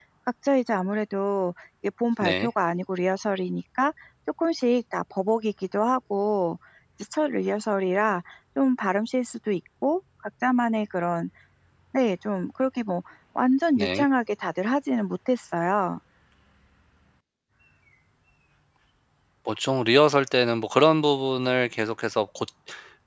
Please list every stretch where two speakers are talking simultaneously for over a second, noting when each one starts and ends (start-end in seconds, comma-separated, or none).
none